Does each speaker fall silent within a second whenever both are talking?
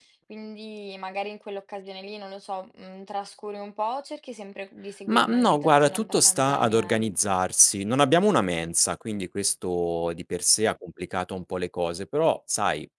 No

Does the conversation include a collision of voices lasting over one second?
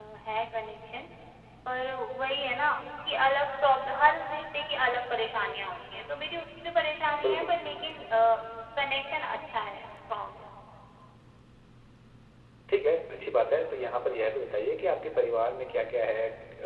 No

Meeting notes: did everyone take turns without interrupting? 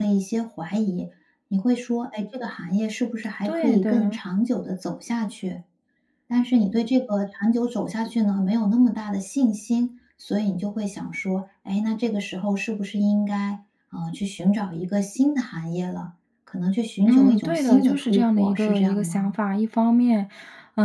No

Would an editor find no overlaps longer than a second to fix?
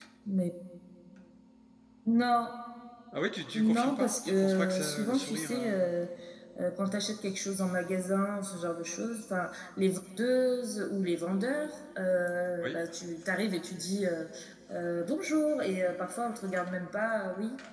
No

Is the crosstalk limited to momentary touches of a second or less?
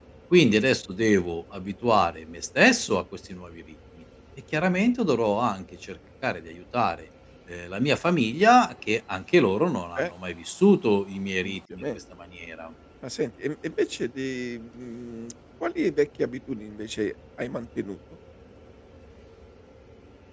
Yes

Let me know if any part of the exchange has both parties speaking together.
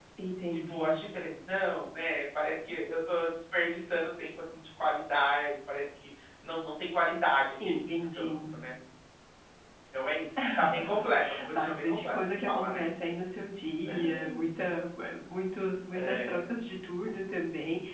Yes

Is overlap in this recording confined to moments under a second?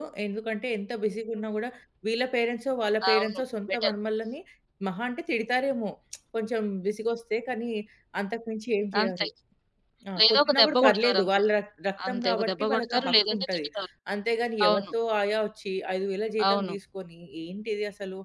No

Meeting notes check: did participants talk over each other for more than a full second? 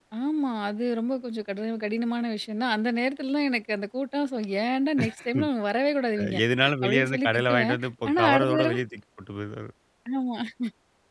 Yes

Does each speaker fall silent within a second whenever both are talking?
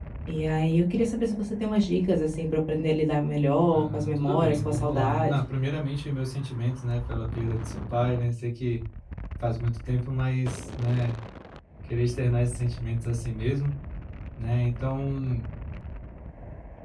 No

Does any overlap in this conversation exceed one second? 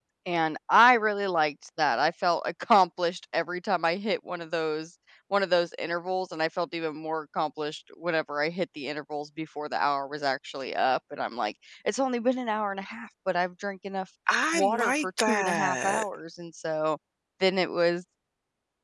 Yes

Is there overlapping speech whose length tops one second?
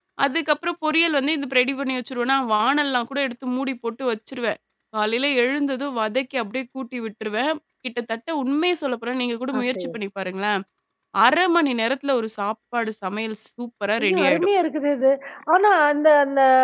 No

